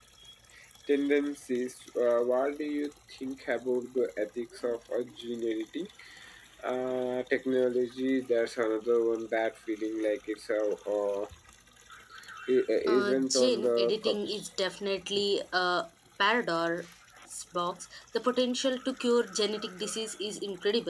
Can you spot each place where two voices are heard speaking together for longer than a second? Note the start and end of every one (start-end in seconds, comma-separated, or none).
12.9-14.3